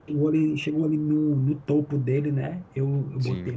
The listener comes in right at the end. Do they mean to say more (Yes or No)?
Yes